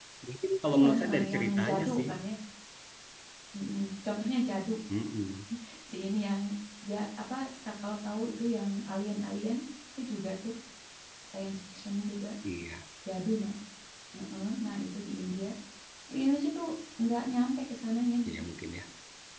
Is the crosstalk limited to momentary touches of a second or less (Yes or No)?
No